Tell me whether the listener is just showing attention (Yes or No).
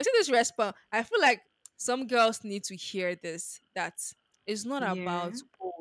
Yes